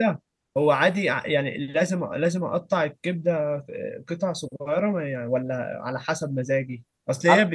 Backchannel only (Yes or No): Yes